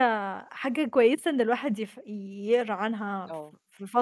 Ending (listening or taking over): listening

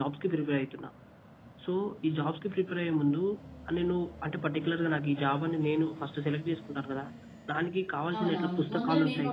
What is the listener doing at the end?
taking over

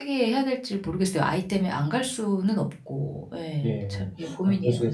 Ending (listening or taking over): taking over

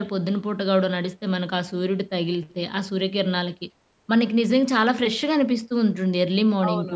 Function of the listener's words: taking over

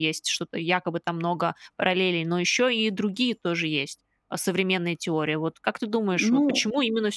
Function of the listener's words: listening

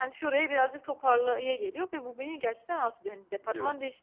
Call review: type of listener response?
listening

